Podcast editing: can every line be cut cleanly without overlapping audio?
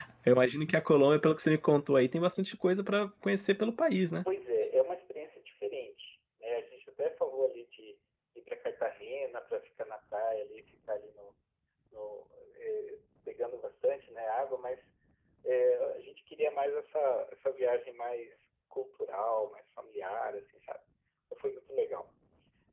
Yes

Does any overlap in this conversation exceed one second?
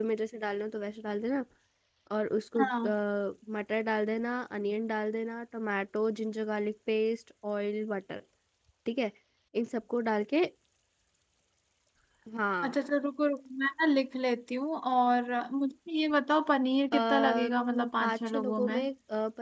Yes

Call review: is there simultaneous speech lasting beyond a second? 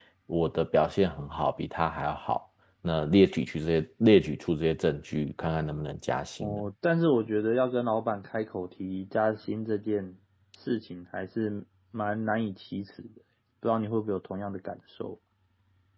No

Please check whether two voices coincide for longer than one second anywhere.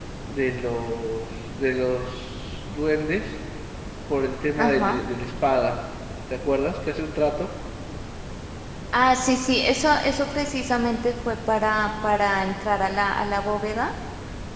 No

